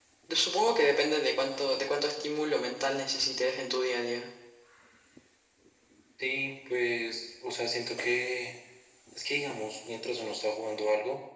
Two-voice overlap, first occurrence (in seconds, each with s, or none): none